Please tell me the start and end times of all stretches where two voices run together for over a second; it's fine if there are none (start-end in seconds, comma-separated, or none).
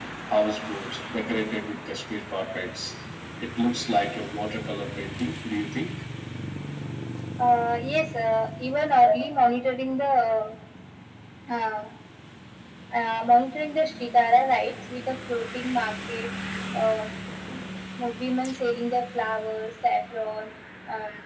none